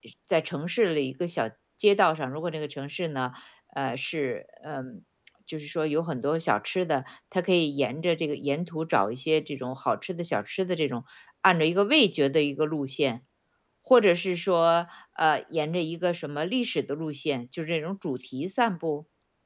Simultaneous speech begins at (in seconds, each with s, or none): none